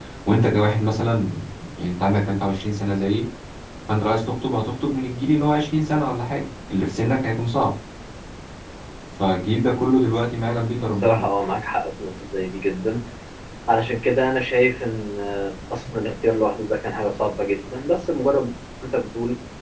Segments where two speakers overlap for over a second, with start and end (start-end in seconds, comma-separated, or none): none